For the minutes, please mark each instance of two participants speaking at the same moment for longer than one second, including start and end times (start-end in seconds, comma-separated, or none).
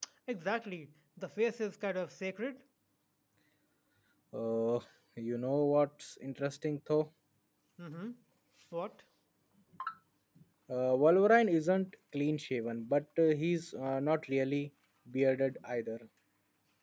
none